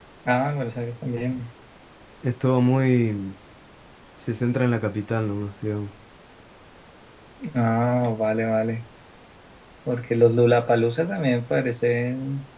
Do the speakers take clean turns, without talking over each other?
Yes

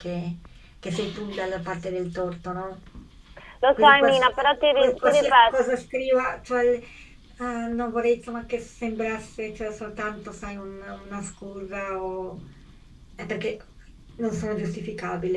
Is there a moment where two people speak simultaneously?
Yes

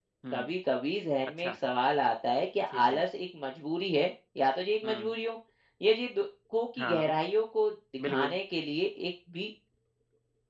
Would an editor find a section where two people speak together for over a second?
No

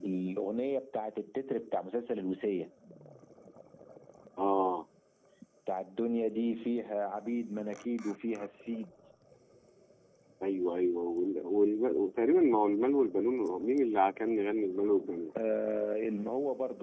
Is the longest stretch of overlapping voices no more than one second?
Yes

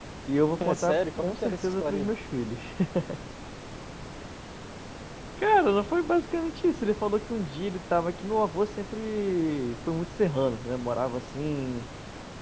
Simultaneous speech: Yes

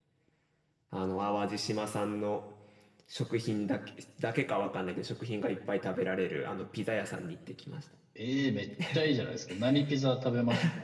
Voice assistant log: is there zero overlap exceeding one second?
Yes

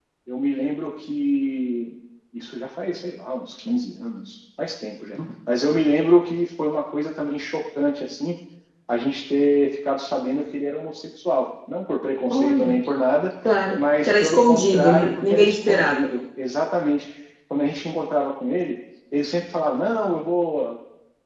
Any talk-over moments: Yes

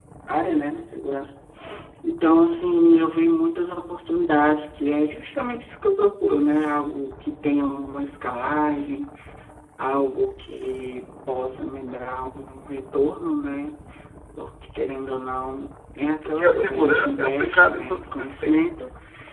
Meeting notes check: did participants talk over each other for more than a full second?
Yes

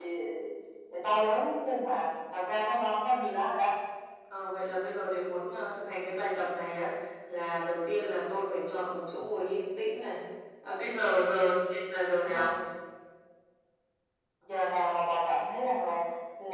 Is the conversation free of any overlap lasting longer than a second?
Yes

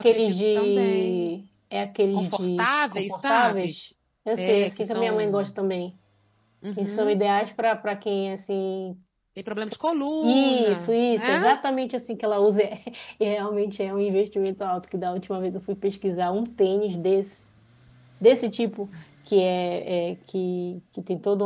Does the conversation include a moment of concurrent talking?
Yes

